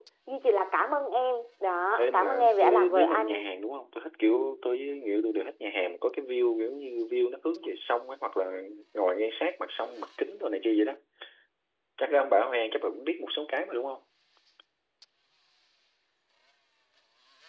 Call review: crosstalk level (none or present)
present